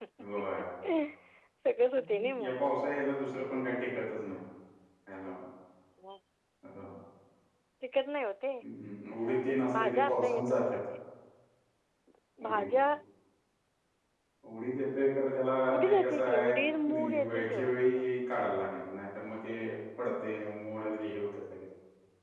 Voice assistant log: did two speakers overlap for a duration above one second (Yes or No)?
Yes